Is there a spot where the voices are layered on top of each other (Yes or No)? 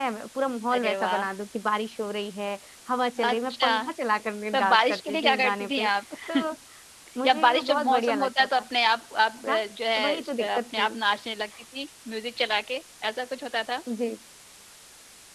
Yes